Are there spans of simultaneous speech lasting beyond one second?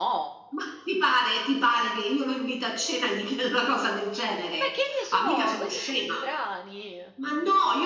Yes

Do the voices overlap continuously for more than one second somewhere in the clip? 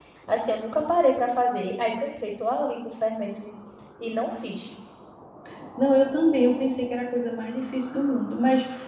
No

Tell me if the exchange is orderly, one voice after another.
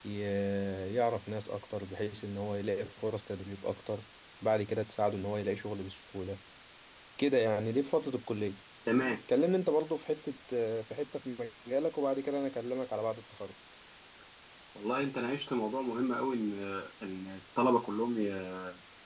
Yes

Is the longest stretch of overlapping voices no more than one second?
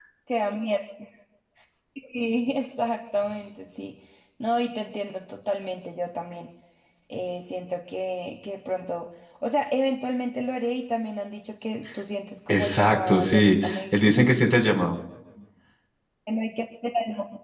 No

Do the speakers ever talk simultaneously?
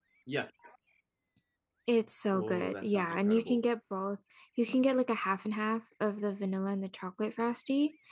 Yes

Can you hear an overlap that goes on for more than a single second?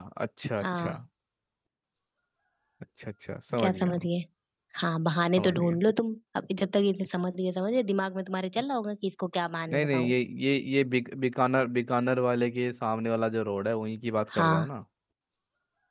No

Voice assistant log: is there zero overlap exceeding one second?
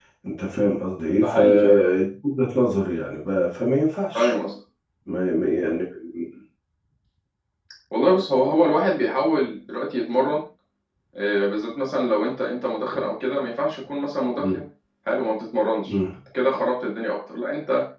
Yes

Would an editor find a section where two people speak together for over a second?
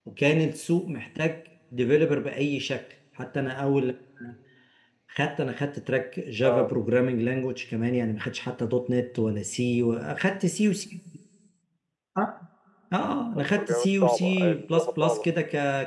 Yes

